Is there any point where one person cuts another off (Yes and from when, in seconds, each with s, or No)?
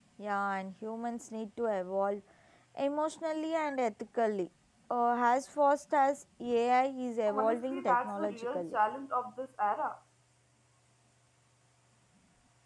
Yes, from 7.3 s